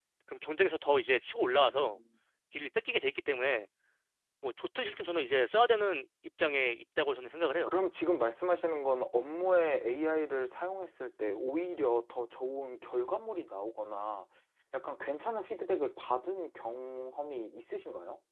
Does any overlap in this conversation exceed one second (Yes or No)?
No